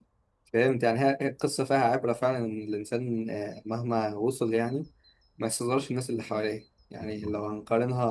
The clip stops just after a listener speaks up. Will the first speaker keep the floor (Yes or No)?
Yes